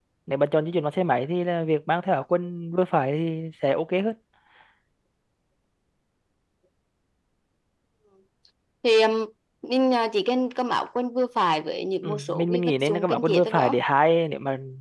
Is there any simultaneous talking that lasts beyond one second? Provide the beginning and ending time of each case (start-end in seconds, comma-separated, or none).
12.0-13.7